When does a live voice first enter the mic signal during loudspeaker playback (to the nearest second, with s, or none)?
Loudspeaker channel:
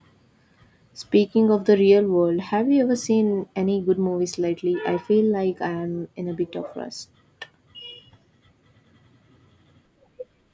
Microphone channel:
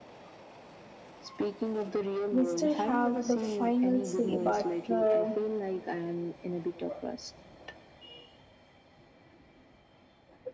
2 s